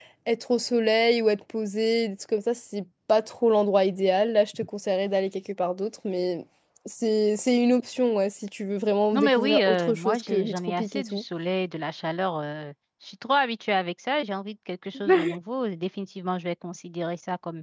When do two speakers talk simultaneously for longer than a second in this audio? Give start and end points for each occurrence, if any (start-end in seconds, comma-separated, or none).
9.1-11.2